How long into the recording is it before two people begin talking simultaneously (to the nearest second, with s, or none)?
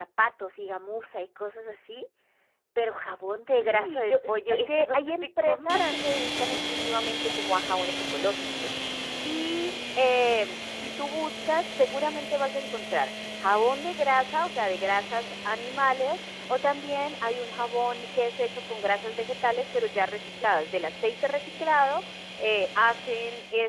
4 s